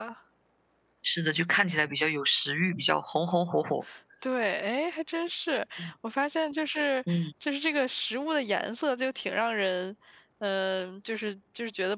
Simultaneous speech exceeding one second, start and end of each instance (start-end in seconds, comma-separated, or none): none